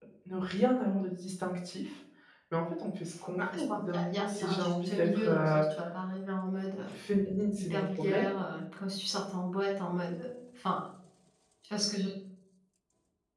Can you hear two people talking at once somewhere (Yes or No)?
Yes